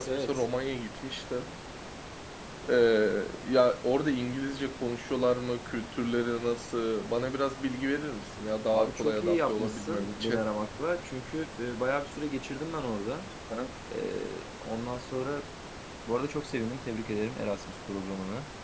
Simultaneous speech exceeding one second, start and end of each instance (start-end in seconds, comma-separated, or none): 8.7-10.4